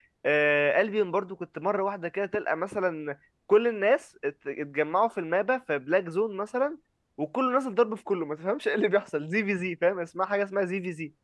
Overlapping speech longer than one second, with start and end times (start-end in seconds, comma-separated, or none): none